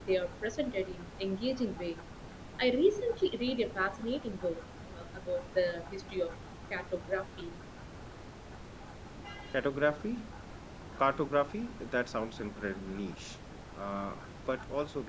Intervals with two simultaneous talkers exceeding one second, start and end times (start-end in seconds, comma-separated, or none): none